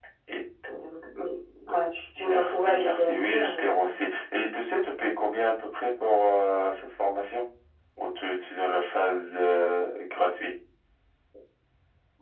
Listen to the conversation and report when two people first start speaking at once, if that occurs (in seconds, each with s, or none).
2.2 s